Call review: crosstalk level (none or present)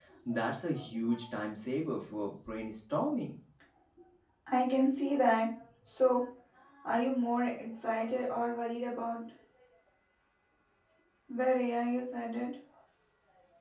none